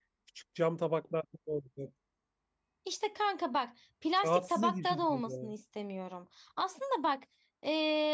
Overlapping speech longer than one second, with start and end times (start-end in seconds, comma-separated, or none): 4.2-5.5